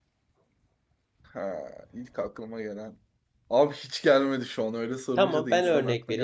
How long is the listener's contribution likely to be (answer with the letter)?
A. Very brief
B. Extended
B